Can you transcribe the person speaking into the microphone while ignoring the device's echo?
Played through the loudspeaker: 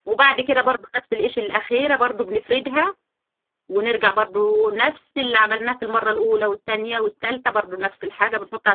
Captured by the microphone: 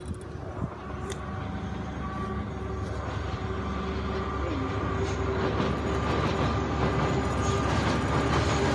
none

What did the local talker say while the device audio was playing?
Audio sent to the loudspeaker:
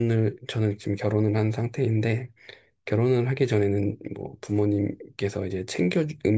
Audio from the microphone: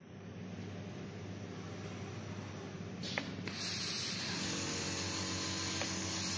none

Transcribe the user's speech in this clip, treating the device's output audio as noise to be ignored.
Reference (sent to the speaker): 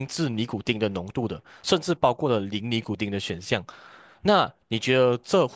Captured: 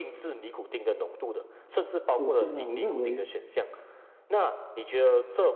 首先呢，我认为

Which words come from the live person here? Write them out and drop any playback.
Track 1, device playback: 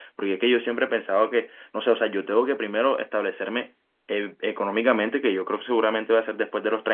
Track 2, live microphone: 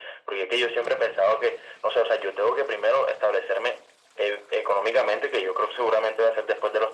none

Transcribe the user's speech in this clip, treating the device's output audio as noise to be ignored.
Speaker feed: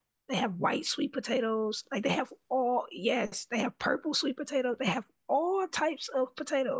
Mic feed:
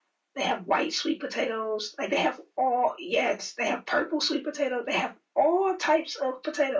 none

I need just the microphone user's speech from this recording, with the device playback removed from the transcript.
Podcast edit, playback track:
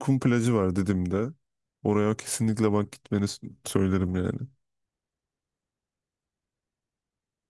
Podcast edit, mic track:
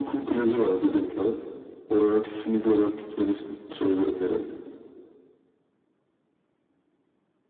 none

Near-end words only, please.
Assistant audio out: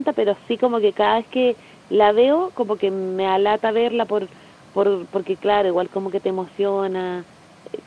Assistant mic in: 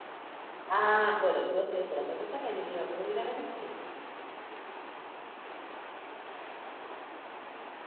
Ah, bueno, yo estoy esperando a que salga, yo quiero puro ir a ver el cine.

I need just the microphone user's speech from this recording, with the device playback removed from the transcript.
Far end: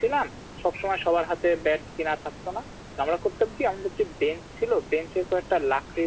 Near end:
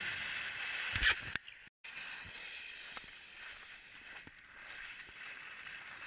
none

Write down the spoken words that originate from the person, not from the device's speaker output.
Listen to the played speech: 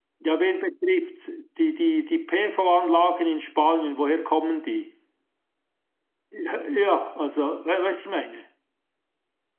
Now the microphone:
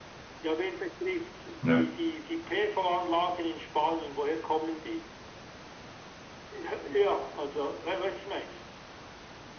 ne.

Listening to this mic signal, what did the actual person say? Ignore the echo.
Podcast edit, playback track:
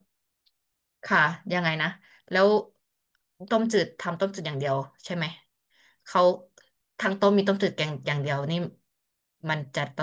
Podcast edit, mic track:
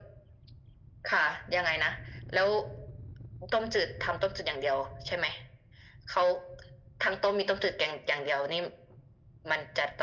none

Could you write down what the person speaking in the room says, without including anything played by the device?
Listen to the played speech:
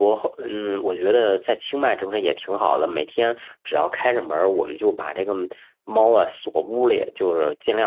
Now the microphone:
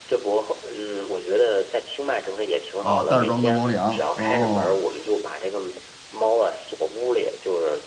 啊，袋儿装的猫粮。哦，

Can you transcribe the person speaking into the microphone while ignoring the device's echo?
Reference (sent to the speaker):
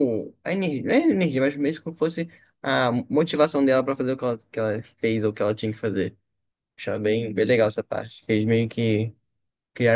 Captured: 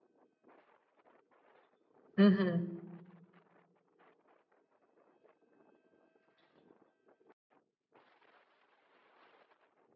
Uhum.

